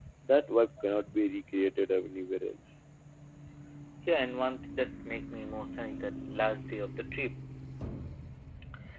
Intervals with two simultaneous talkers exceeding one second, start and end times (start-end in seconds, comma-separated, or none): none